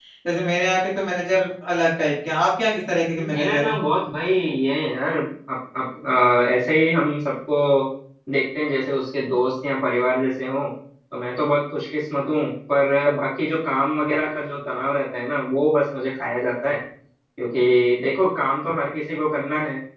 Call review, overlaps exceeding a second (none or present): none